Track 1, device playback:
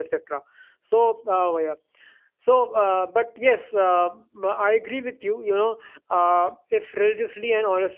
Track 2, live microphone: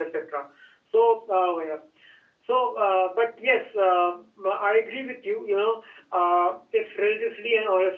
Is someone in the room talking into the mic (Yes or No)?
No